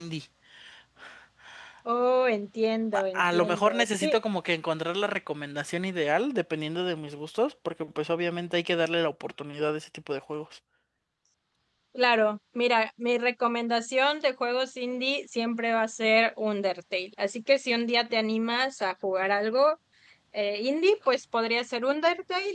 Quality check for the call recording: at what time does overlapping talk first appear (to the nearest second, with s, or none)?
3 s